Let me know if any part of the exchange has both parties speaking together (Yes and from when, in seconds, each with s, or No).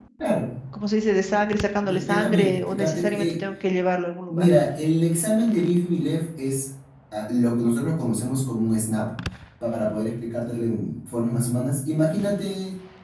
Yes, from 1.8 s